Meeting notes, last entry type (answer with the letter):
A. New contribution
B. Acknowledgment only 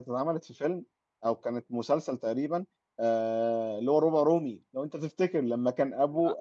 B